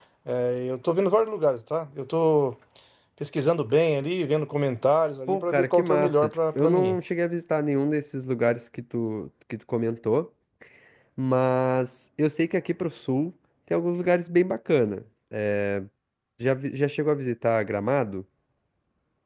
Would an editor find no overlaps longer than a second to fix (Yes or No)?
No